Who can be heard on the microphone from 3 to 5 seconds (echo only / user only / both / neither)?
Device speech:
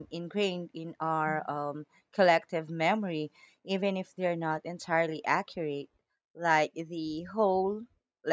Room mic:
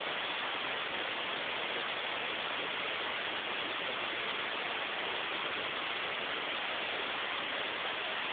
neither